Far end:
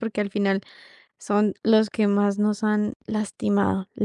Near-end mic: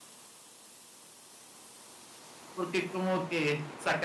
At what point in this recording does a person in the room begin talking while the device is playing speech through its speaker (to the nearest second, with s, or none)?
3 s